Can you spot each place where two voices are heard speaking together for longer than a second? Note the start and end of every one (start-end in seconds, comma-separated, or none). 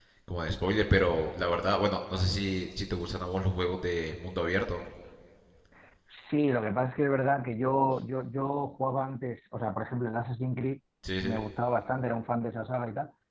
none